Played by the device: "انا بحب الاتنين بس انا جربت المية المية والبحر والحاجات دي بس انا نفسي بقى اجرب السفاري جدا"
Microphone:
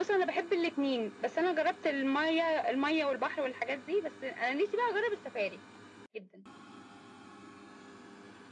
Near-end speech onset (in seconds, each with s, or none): none